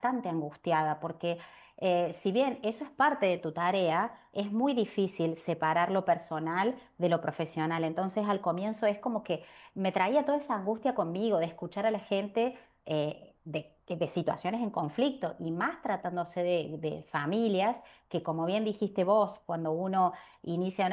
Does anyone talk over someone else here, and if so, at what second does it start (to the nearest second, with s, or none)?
none